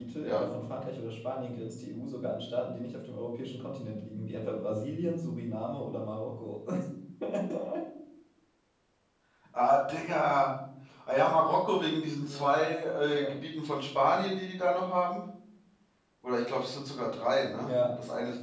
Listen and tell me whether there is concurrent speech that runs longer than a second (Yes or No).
No